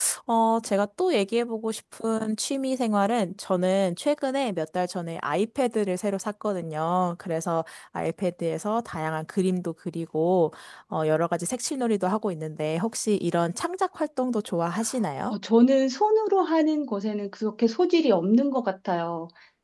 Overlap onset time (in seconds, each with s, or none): none